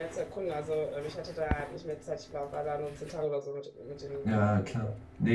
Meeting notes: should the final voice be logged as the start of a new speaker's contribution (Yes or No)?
Yes